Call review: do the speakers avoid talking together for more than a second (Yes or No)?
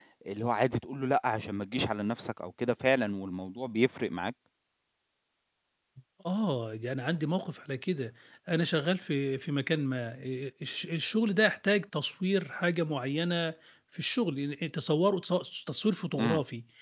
Yes